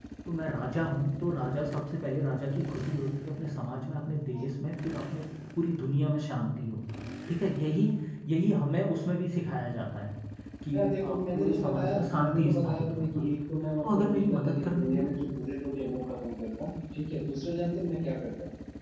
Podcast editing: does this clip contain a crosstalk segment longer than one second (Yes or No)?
Yes